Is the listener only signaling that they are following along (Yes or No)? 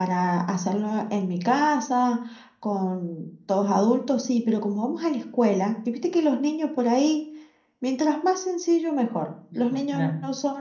Yes